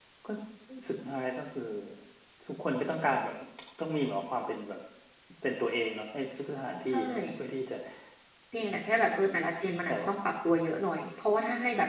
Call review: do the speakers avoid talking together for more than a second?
Yes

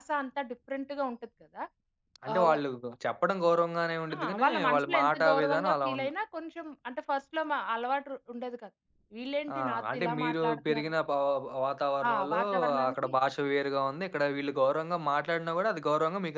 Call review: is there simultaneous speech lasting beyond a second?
Yes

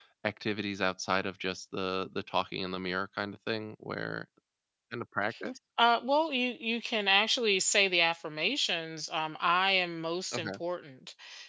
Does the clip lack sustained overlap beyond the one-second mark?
Yes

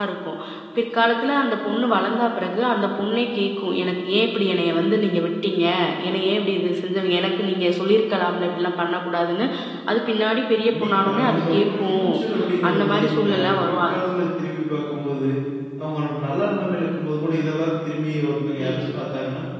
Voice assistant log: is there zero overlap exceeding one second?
No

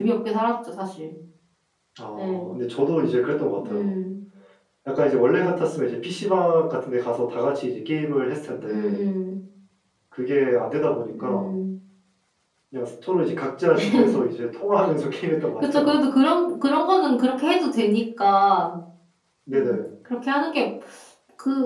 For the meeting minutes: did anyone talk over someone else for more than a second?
No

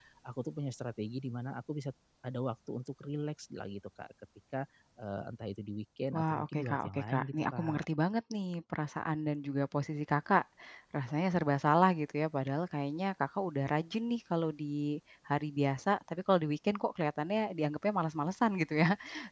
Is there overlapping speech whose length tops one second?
Yes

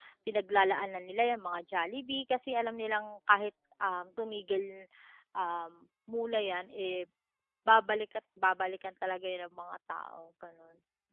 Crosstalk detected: No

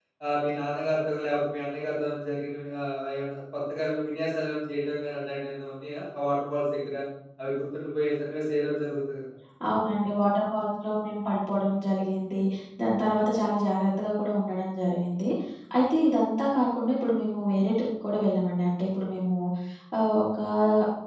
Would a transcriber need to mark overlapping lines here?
No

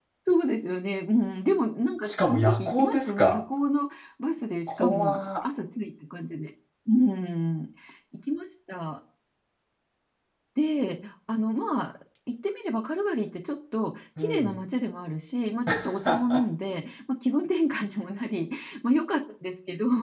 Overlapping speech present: Yes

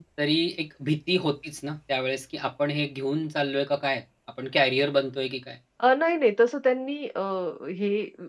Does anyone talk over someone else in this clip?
No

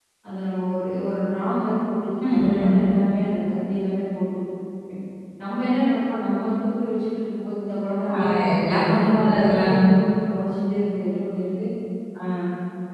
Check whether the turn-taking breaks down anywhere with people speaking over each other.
Yes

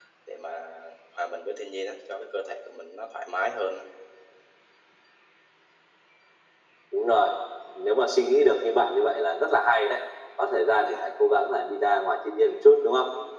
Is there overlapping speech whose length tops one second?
No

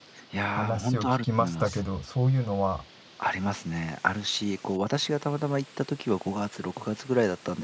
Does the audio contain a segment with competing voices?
Yes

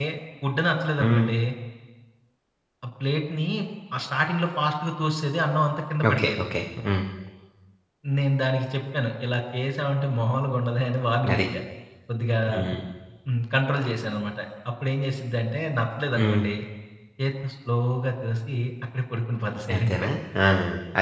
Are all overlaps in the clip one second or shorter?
Yes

